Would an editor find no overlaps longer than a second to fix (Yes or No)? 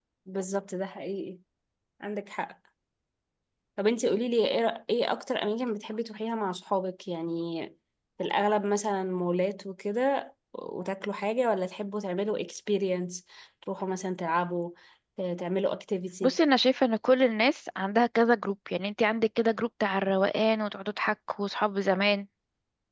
Yes